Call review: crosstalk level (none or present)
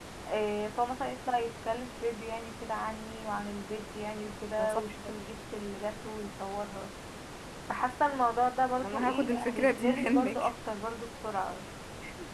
present